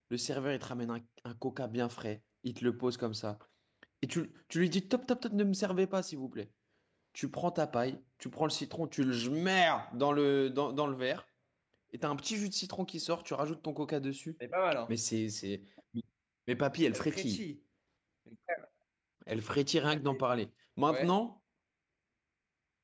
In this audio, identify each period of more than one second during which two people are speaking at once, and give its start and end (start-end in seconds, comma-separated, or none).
none